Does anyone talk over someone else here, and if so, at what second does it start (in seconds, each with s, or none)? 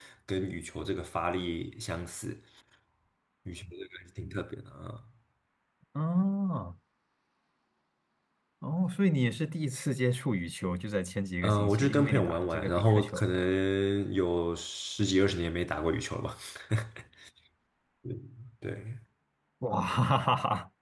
11.4 s